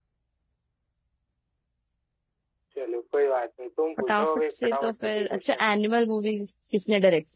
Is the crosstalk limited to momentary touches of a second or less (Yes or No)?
No